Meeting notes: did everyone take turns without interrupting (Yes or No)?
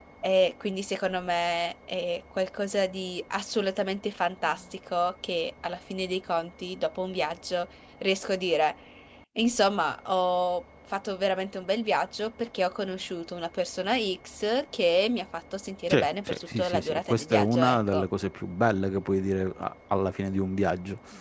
No